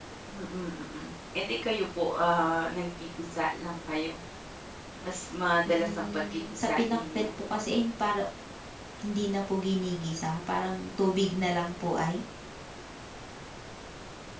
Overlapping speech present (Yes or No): Yes